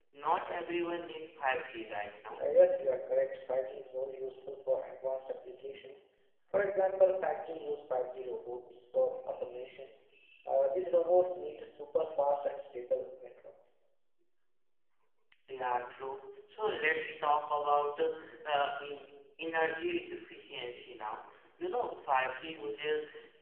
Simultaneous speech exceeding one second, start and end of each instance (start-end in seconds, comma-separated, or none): none